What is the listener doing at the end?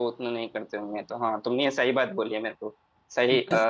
listening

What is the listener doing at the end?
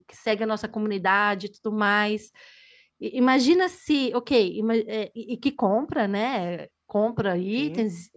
listening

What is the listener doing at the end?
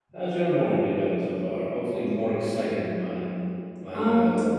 taking over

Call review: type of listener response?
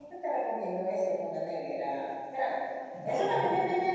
listening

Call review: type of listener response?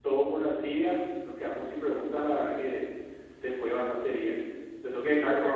listening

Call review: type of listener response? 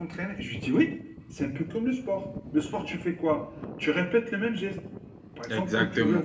listening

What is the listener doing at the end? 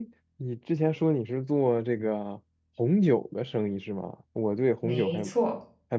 listening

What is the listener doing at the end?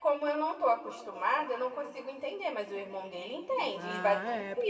taking over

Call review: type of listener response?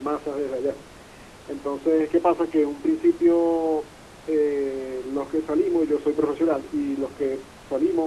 listening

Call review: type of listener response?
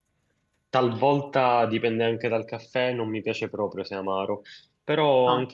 listening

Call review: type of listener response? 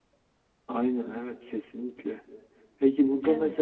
listening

